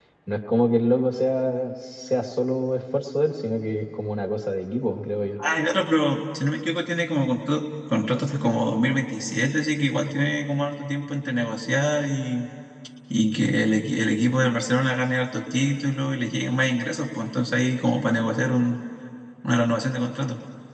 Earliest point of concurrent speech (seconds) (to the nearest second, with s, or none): none